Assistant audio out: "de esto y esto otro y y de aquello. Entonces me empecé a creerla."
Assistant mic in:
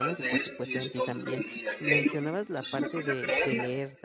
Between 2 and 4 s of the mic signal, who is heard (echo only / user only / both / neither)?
both